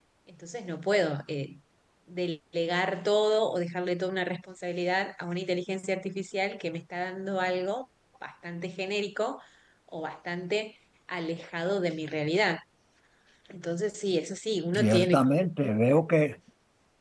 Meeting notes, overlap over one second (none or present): none